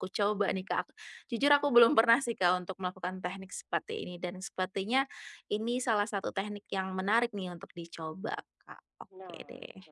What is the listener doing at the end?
taking over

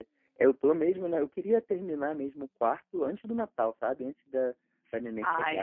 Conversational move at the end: listening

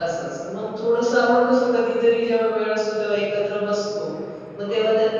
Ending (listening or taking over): listening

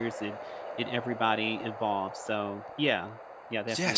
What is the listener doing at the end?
taking over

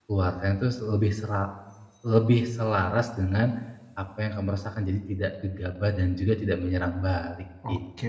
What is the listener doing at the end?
taking over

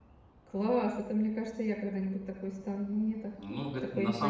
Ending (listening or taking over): taking over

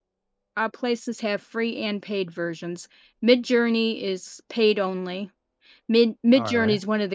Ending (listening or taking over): listening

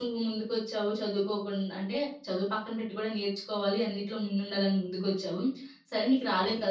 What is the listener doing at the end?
listening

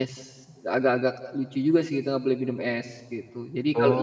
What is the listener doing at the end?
taking over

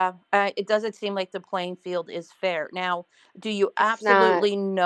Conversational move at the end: listening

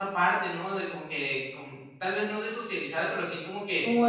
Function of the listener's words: taking over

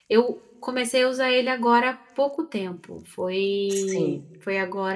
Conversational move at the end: listening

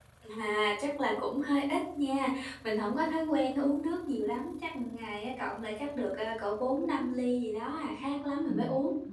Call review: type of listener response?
taking over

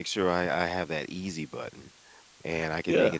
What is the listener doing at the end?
listening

